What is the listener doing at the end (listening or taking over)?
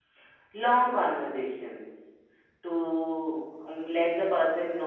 listening